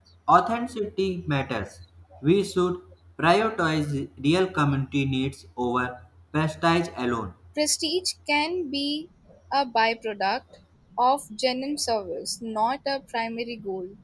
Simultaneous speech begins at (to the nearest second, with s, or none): none